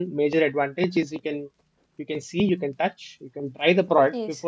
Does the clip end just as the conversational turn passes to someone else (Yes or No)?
No